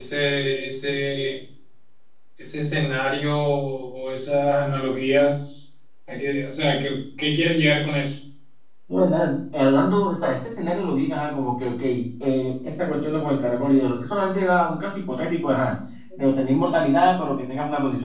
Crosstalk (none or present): none